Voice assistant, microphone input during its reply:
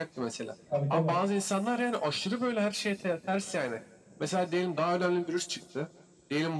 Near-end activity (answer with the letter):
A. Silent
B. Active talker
B